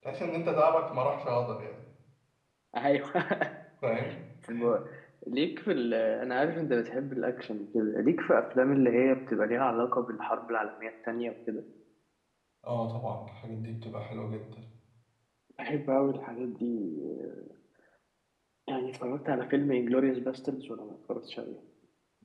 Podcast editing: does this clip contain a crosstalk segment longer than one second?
No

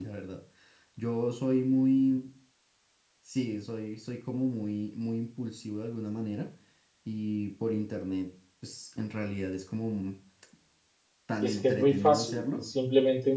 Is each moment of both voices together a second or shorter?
No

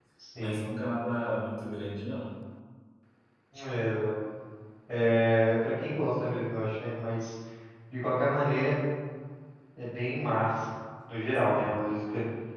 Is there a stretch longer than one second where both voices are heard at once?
No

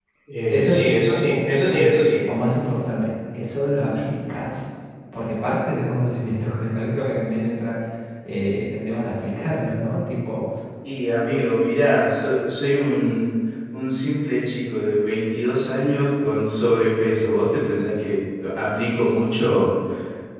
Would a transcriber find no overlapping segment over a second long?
No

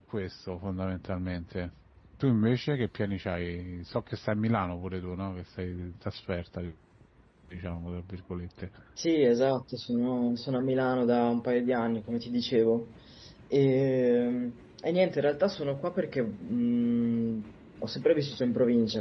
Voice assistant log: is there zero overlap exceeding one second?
Yes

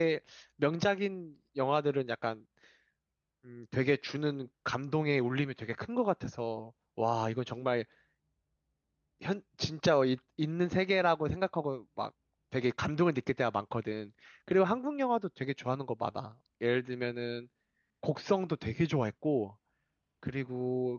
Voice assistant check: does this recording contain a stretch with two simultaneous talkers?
No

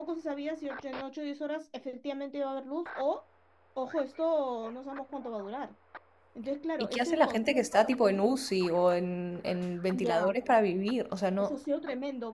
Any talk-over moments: Yes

